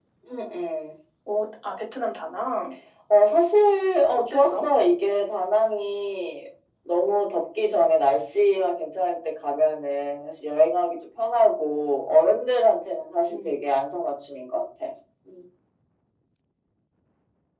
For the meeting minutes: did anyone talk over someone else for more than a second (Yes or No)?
No